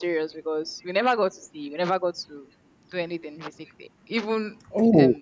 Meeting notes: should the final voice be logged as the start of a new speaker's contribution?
No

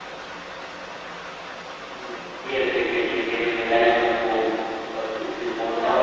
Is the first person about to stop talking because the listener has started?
No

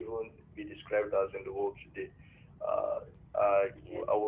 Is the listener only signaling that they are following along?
Yes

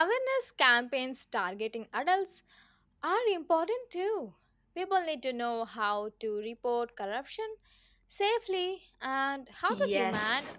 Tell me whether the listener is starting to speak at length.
Yes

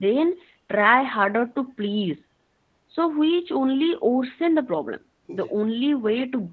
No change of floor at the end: Yes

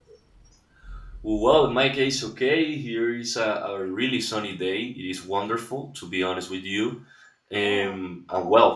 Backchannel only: Yes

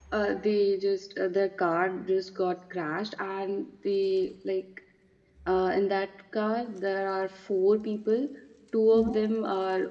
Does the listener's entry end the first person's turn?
No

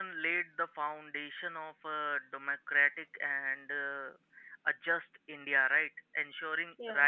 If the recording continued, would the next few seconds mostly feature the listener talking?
No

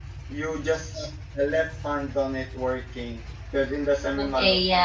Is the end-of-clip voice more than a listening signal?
Yes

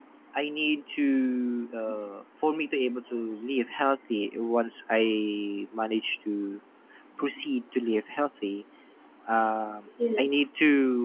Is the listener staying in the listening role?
Yes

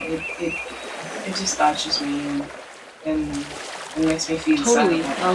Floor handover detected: Yes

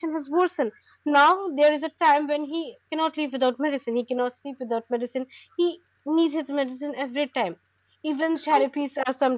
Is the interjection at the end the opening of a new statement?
No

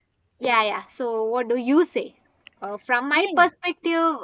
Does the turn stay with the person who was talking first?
Yes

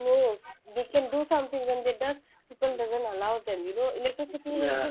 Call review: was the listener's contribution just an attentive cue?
Yes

